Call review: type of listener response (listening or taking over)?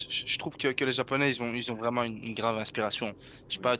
listening